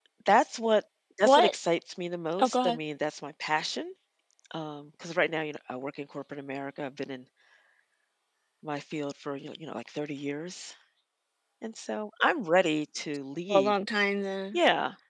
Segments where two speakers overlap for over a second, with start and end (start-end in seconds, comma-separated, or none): none